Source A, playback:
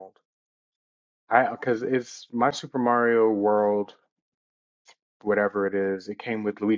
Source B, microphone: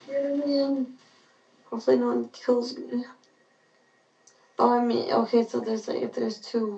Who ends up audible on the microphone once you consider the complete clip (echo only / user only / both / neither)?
user only